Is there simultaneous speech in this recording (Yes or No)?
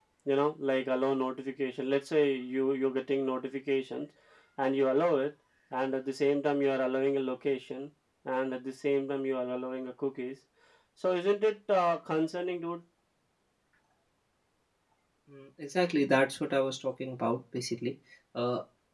No